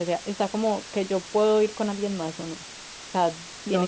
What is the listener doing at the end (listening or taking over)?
taking over